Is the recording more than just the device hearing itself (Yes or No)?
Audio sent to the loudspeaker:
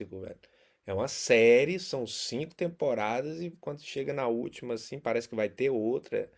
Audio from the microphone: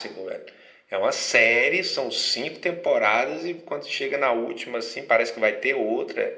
No